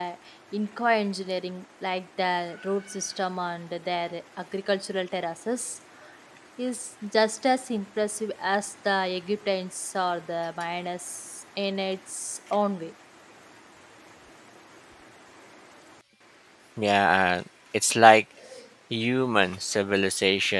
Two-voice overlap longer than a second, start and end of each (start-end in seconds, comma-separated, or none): none